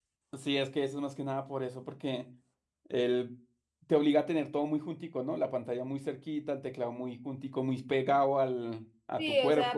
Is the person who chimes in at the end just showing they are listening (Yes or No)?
No